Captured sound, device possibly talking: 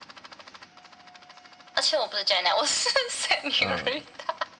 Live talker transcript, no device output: 呃，

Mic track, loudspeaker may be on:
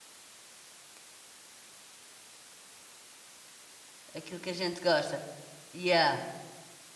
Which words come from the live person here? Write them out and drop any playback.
Aquilo que a gente gosta. Yeah.

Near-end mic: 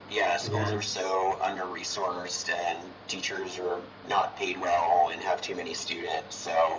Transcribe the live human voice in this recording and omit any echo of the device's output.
Yes.

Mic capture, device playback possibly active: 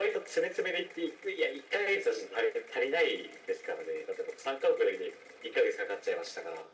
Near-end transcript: none

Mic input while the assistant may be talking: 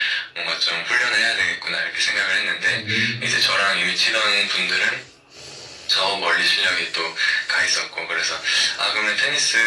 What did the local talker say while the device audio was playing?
음.

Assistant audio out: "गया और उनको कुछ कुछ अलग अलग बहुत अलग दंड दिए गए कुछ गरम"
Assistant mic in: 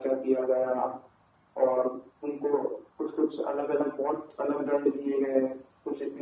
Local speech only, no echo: none

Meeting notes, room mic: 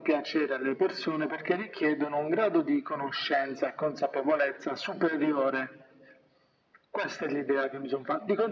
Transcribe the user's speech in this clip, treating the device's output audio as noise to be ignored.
none

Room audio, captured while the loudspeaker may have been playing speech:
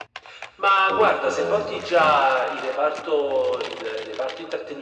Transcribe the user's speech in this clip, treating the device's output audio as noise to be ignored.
ok, ok.

